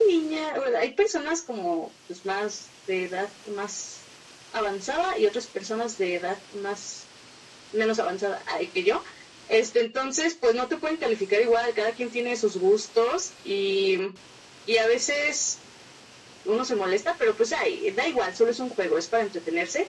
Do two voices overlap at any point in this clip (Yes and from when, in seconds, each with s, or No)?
No